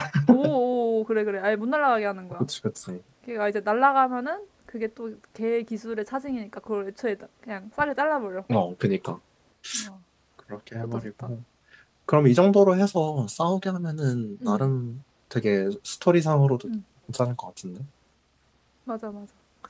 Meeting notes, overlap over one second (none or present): none